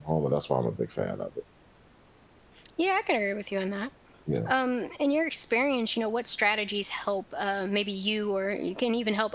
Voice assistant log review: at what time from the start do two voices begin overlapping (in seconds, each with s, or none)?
none